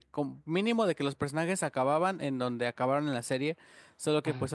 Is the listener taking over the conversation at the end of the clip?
No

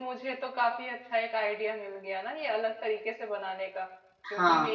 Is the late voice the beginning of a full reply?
No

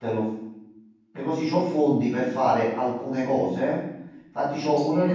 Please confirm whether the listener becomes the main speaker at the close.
No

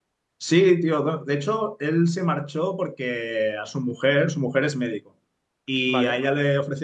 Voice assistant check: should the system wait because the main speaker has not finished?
Yes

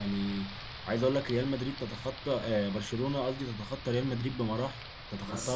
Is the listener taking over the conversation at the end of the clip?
Yes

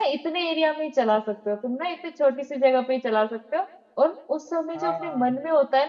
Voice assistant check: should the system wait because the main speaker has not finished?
Yes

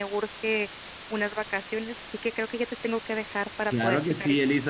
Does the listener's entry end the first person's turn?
Yes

